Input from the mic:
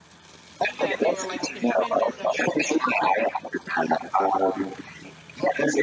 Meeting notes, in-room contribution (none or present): present